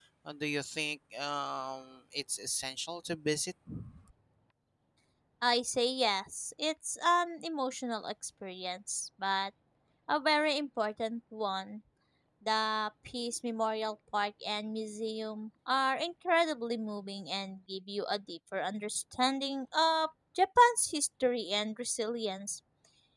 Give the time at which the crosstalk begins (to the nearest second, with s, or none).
none